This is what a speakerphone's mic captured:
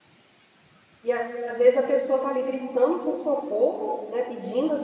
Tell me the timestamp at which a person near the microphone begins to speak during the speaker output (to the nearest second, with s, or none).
1 s